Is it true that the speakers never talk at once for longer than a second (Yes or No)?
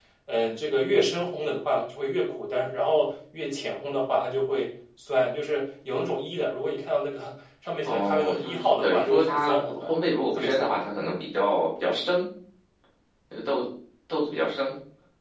No